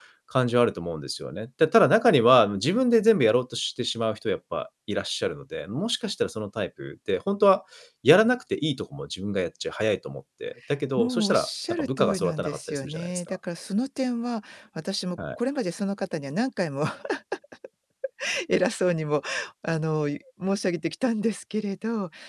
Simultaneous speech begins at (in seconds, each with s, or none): 11.0 s